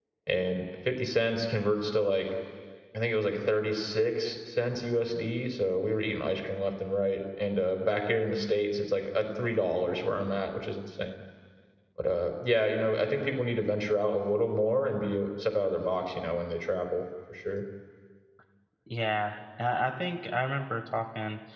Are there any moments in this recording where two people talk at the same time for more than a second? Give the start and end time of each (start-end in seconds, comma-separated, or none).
none